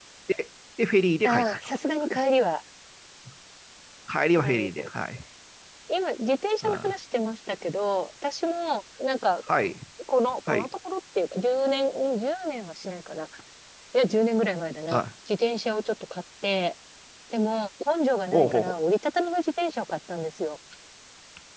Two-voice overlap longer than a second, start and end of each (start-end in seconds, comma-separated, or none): none